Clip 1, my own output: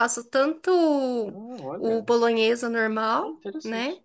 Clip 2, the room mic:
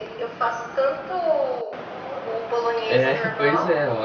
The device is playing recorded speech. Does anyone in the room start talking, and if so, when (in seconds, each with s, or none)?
2.9 s